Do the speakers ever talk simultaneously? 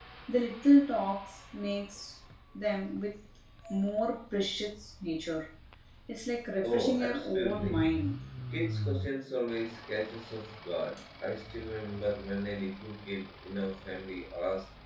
Yes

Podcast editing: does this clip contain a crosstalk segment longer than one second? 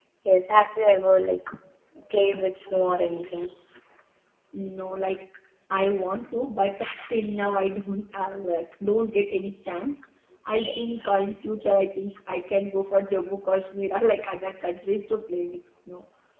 No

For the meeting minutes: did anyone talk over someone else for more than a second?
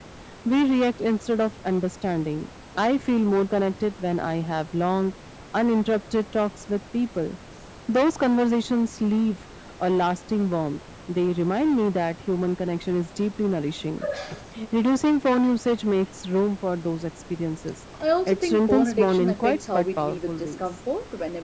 Yes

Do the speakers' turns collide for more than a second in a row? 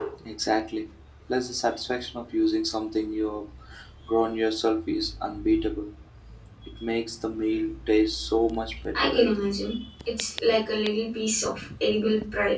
No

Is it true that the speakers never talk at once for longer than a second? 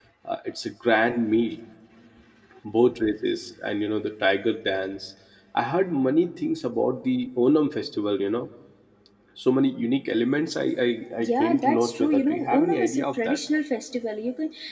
No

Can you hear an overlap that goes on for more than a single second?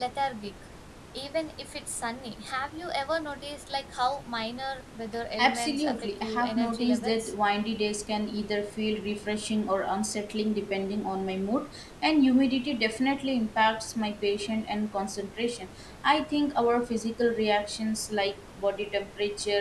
Yes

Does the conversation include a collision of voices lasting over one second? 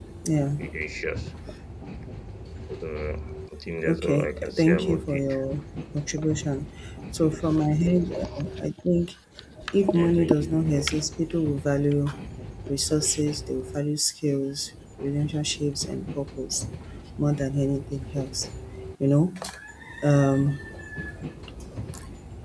Yes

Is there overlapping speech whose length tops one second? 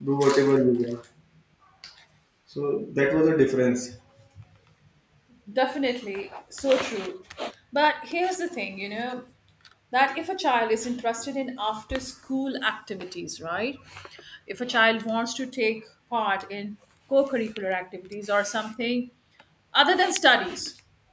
No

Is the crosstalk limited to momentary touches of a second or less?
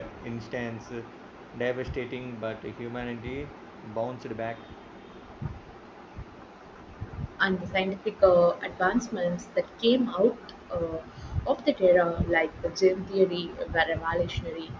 Yes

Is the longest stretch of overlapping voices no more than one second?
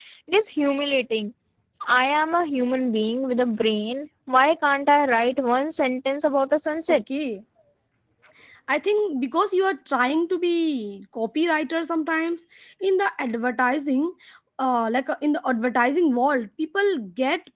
Yes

